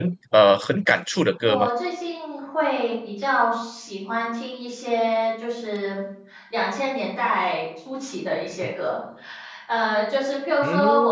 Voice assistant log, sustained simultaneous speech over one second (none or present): none